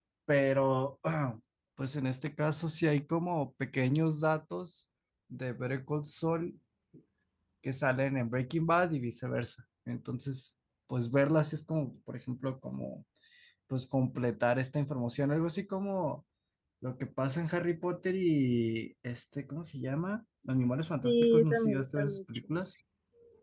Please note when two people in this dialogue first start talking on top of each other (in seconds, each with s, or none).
20.9 s